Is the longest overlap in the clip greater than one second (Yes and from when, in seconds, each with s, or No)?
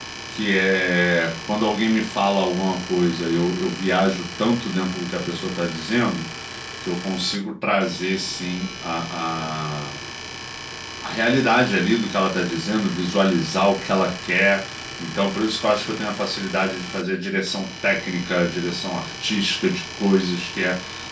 No